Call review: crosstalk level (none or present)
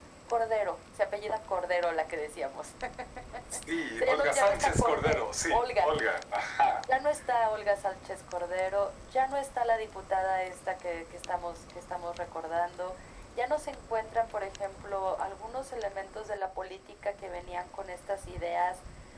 present